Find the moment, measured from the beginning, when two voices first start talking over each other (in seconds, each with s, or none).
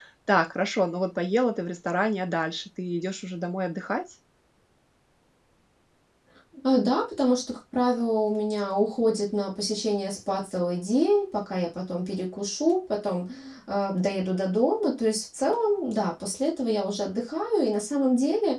none